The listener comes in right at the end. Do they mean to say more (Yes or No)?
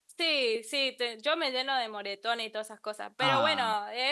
No